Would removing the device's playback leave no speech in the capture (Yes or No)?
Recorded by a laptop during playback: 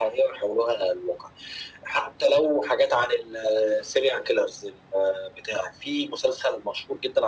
Yes